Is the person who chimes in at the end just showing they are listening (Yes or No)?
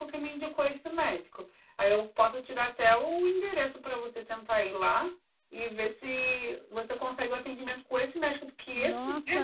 No